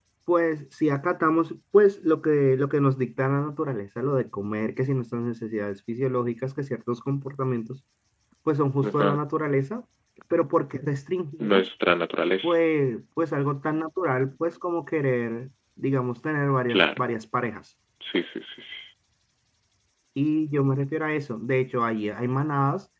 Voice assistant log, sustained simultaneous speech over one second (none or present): none